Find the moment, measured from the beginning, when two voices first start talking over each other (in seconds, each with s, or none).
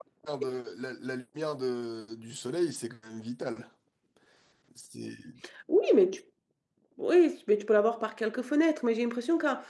none